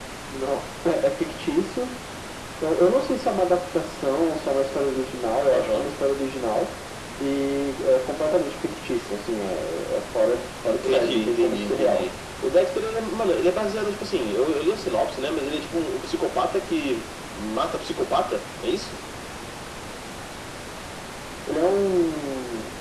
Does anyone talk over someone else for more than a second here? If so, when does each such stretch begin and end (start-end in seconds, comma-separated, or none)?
10.7-12.1